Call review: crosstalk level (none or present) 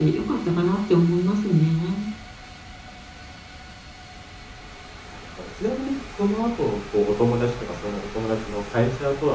none